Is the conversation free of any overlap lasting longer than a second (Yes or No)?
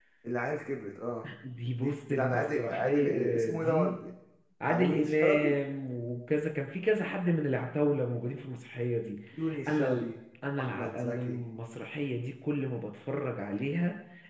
No